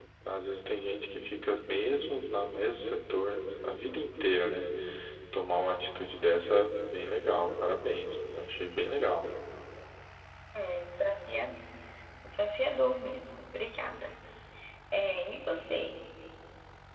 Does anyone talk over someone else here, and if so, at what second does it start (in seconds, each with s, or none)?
none